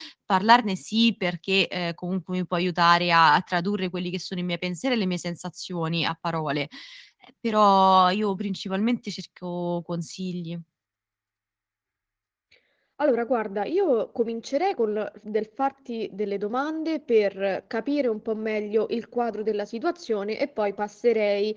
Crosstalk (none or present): none